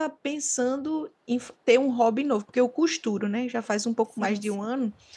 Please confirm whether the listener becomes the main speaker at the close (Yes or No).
No